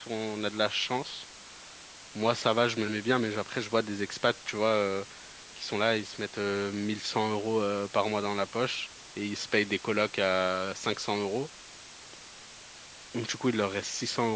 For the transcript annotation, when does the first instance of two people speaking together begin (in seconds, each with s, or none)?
none